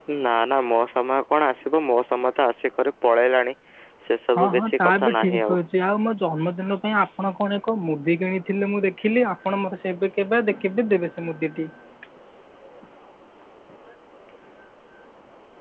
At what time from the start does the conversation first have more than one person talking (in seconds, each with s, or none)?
4.3 s